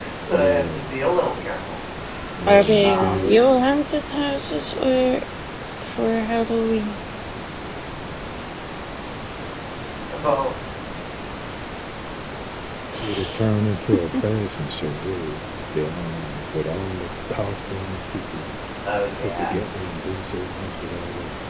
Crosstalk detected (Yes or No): Yes